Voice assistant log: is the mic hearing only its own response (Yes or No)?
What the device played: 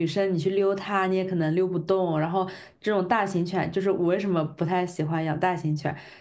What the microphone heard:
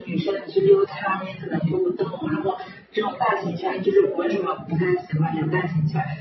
Yes